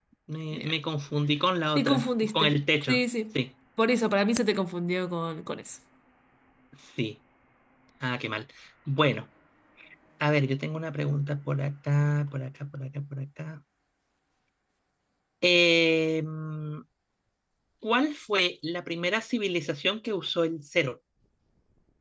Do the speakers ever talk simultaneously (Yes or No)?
Yes